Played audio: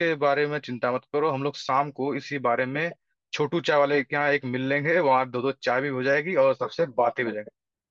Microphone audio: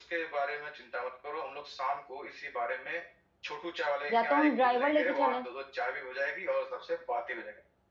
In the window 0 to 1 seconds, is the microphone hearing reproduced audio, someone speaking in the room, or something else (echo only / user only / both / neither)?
echo only